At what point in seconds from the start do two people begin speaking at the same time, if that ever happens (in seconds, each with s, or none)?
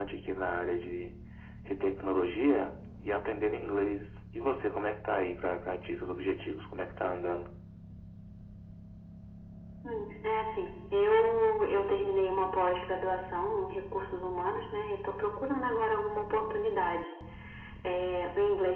none